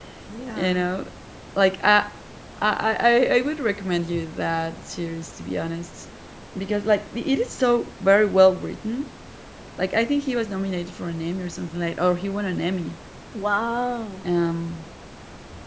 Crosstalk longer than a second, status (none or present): none